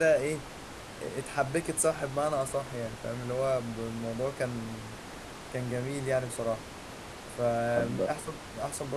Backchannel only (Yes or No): Yes